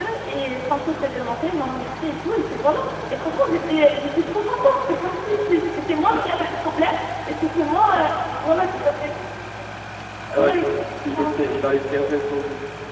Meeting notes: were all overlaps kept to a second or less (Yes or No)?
Yes